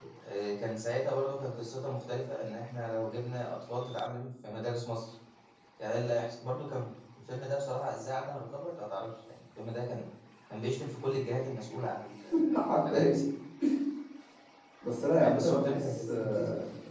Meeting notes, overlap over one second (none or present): present